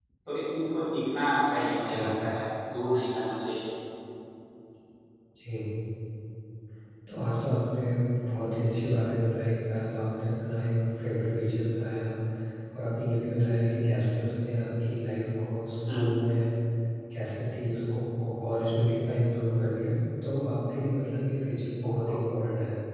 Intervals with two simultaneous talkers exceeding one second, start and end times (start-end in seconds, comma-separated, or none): none